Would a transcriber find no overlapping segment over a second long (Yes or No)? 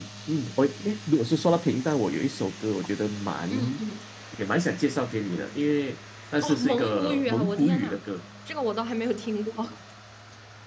No